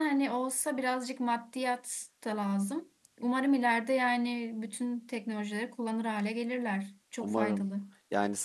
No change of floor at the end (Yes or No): No